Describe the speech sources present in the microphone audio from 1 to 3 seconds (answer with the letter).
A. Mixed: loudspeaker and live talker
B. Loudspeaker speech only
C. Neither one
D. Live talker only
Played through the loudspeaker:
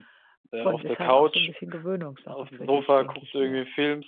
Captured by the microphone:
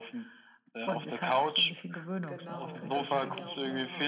A